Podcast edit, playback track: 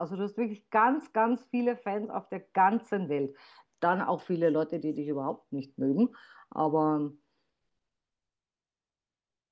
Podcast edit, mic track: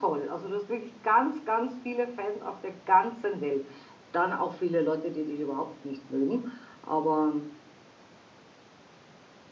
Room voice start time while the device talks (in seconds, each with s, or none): none